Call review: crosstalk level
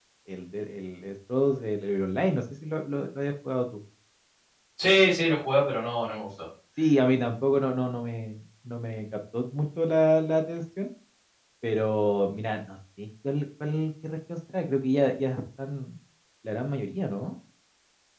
none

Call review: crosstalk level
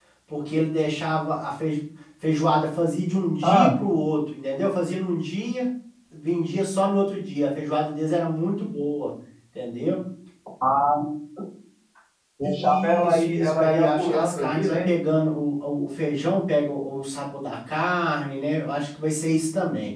present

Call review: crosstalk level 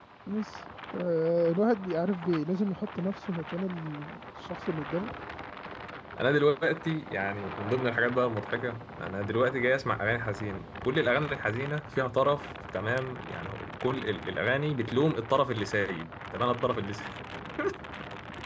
none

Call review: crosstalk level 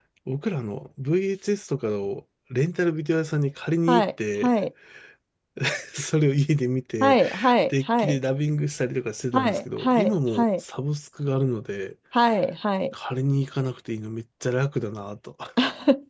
present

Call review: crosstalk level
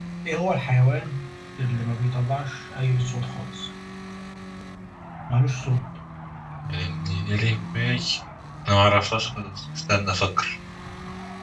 none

